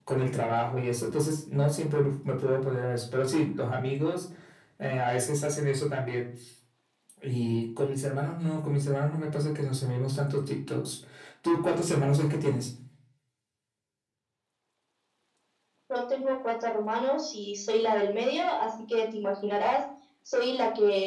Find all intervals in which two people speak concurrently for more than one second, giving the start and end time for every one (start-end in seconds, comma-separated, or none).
none